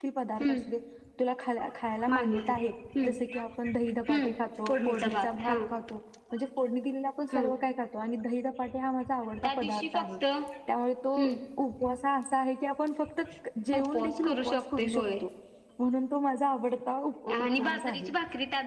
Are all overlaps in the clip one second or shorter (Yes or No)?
No